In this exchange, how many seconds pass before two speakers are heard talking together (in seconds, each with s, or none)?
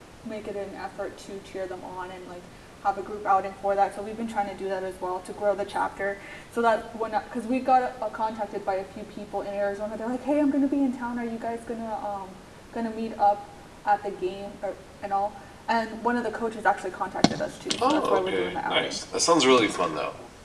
17.7 s